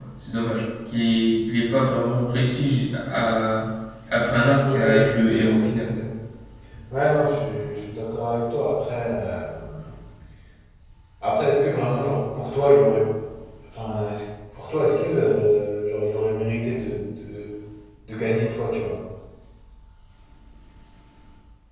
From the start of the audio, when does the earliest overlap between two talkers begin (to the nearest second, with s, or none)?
5 s